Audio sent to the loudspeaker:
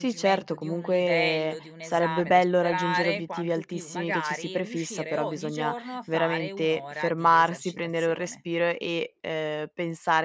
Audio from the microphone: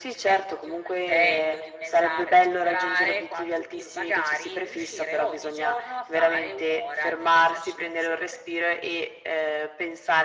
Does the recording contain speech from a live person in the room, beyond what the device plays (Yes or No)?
No